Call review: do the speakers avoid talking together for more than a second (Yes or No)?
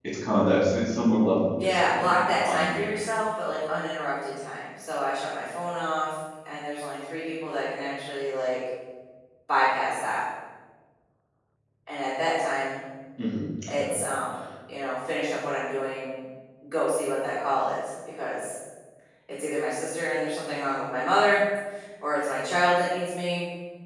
No